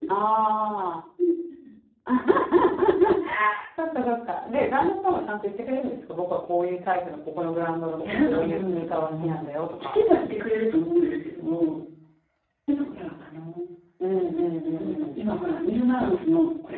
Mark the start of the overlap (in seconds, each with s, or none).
8.1 s